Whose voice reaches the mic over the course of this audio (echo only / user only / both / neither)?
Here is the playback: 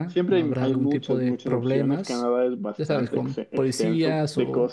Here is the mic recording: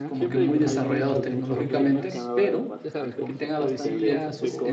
both